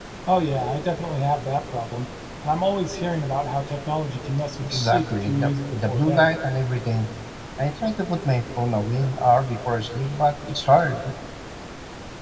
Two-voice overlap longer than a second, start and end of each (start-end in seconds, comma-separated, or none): 4.6-6.3